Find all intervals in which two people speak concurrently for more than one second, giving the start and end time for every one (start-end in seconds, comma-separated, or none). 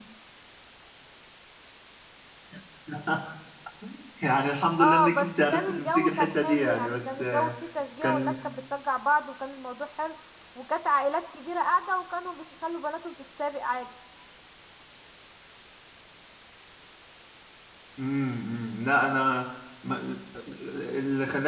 4.8-7.5